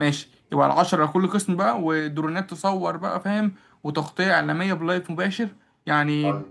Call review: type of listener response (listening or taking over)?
taking over